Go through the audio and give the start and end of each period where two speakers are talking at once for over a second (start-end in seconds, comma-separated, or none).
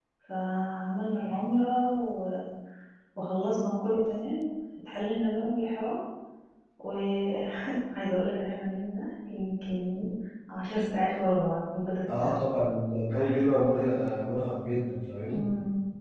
none